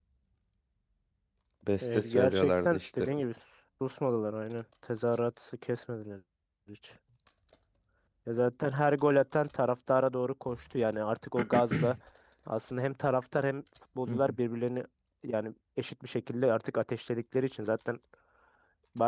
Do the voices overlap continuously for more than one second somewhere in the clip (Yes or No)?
Yes